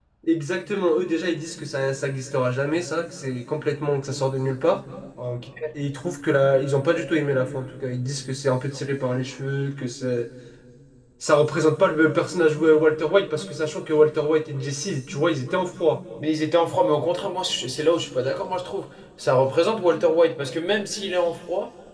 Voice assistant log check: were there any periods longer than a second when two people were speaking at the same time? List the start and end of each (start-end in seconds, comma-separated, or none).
none